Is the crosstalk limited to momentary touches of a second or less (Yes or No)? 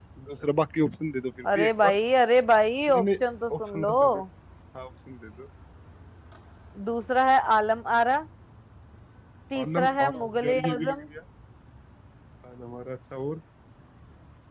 No